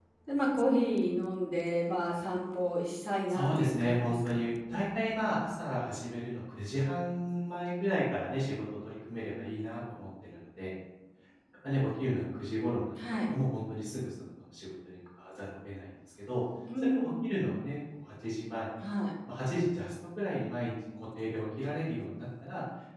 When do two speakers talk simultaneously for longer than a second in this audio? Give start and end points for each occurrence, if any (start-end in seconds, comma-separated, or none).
3.3-4.5